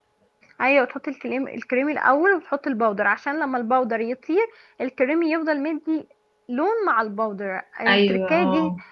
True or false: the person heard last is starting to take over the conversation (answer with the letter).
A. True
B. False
B